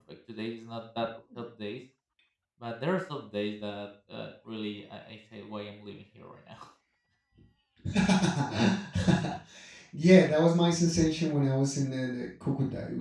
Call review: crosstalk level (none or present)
none